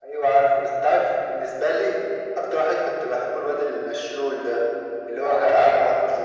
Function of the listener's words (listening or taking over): listening